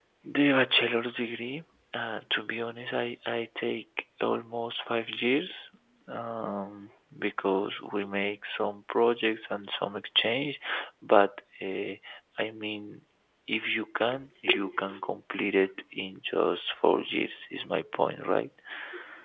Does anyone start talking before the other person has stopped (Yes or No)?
No